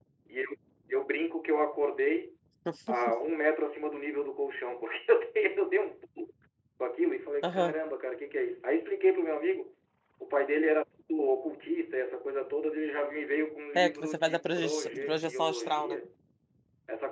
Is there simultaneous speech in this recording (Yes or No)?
Yes